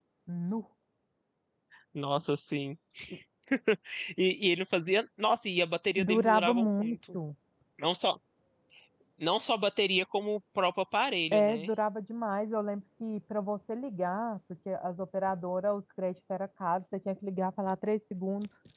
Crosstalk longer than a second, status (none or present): present